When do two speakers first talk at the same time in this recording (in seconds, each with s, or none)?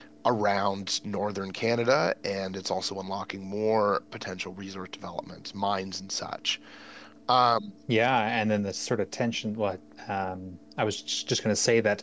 none